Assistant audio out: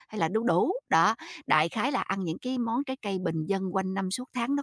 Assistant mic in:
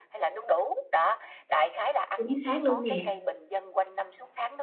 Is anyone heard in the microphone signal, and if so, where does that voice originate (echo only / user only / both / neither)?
both